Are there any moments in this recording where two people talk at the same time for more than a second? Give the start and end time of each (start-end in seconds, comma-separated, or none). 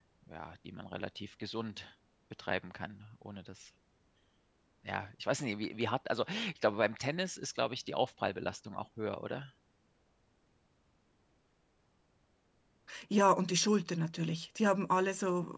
none